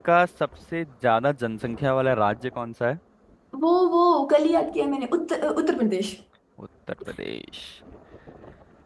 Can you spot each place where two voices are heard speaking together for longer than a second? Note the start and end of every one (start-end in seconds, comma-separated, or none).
none